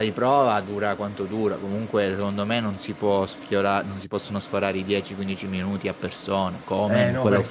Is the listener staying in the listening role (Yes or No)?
No